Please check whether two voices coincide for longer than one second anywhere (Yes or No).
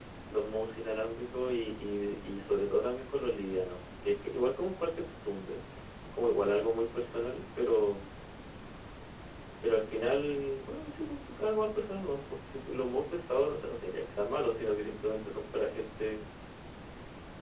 No